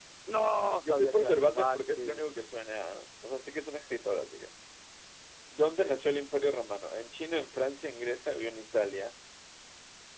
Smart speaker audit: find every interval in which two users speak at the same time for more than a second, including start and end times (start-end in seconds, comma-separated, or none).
0.8-2.2